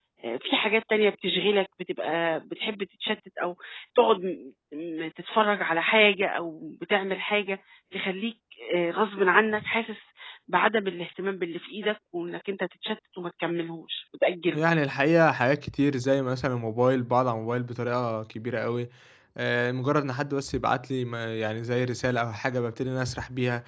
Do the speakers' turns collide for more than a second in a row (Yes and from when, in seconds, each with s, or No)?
No